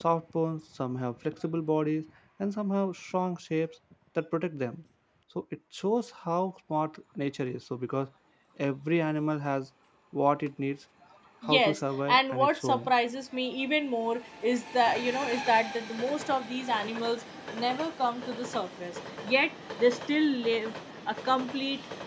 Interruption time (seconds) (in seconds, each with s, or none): 11.4 s